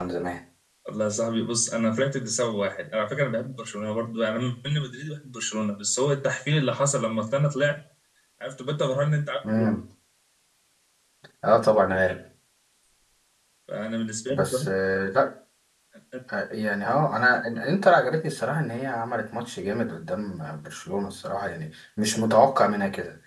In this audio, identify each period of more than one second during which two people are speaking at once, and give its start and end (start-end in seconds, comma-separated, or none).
none